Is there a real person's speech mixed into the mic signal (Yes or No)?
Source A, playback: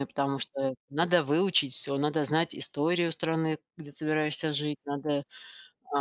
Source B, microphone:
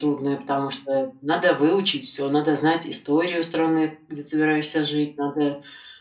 No